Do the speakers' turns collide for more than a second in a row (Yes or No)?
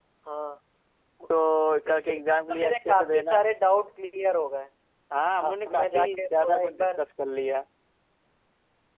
Yes